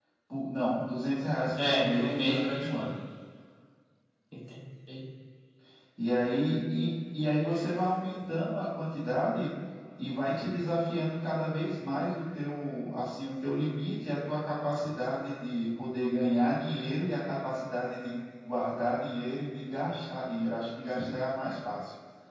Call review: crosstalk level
present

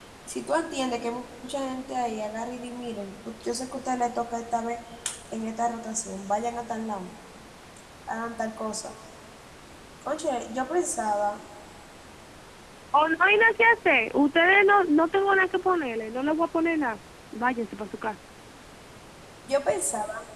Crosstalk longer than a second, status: none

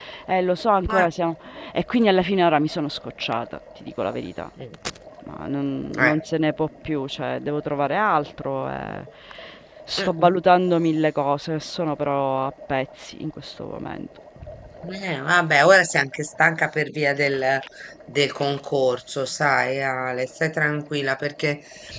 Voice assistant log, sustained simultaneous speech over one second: none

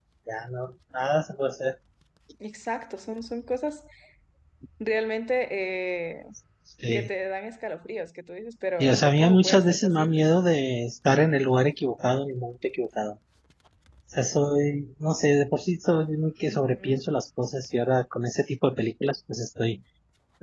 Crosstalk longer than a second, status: present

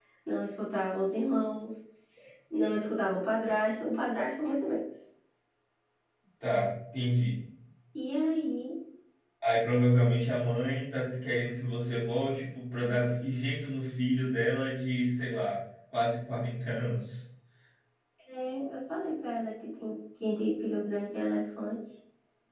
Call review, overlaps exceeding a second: none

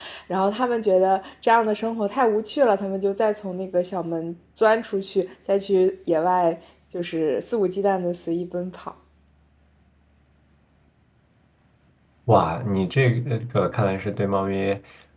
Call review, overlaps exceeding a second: none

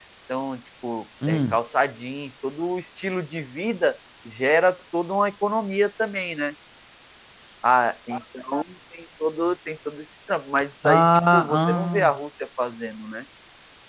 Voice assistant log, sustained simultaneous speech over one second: present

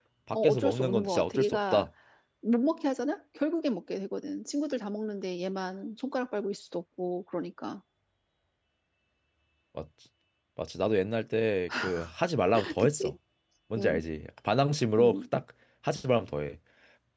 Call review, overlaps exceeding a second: present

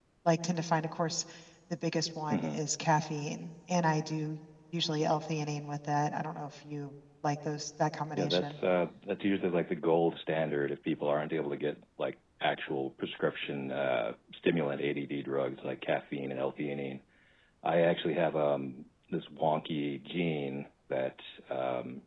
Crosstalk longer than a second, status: none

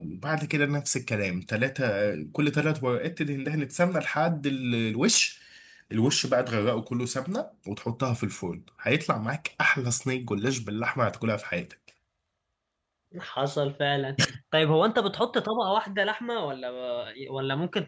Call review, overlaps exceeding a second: none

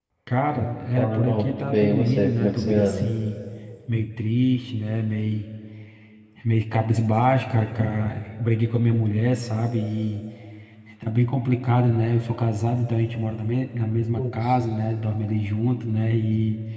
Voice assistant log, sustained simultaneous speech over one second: present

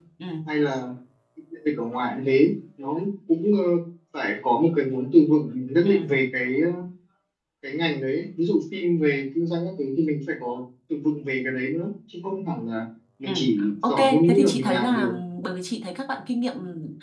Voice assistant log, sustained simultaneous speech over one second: present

